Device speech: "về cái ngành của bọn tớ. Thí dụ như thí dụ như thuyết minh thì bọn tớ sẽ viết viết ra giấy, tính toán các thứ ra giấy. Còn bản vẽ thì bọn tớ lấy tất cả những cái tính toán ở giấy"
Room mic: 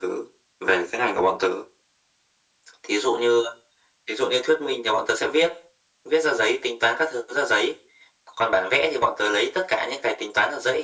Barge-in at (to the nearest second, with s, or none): none